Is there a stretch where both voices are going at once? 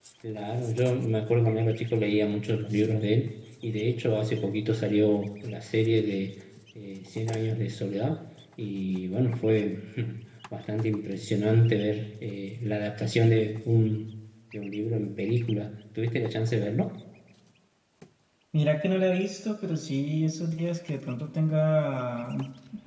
No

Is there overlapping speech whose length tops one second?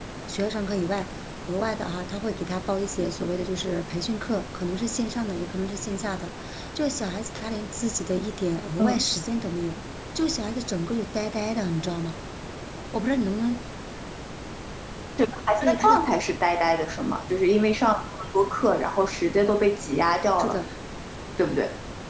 No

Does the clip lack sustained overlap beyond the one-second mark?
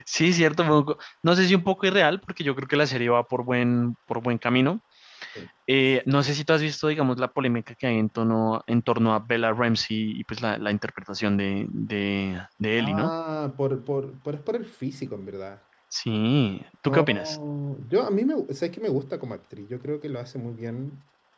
Yes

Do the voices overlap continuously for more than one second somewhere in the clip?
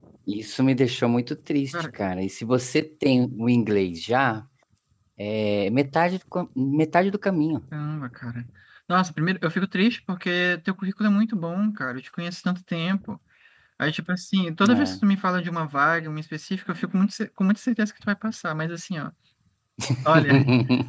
No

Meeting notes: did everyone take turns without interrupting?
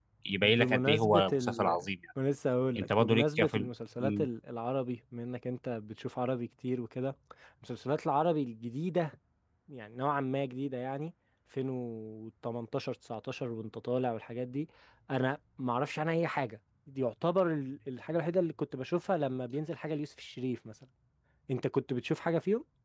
No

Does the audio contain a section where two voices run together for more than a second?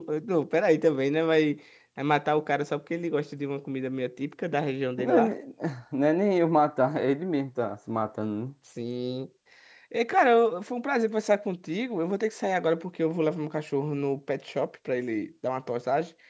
No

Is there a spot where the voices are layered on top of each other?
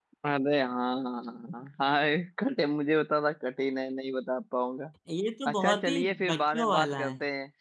Yes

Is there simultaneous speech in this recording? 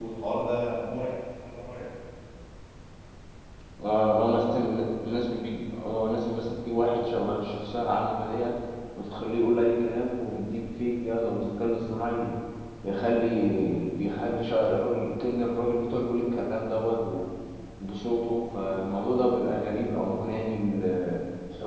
No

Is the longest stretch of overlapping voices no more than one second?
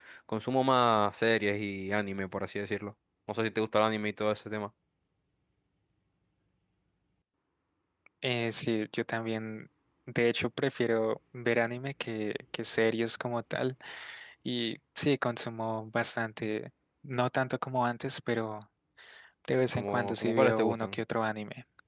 No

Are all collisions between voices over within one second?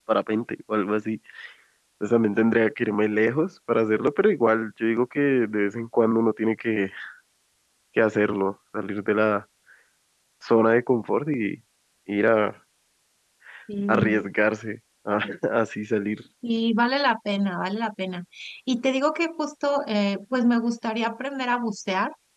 Yes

